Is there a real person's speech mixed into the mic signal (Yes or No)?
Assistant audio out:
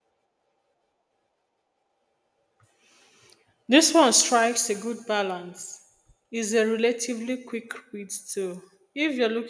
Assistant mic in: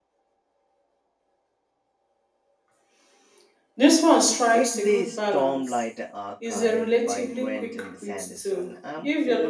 Yes